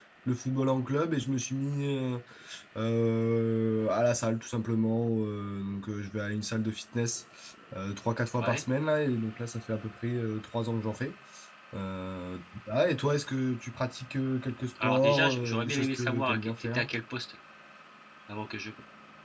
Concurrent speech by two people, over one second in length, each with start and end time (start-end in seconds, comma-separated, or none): 14.8-16.9